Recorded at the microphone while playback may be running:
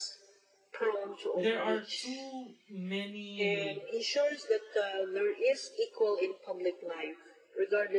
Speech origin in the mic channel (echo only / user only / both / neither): both